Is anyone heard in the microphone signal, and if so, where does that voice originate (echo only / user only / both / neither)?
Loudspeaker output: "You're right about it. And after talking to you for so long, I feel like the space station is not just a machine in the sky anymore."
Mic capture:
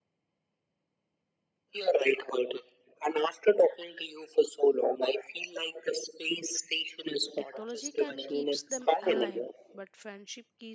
both